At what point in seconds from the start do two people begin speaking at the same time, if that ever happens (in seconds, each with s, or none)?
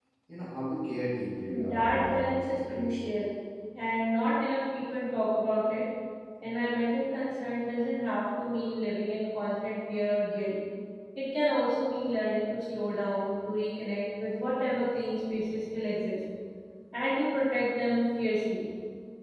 1.5 s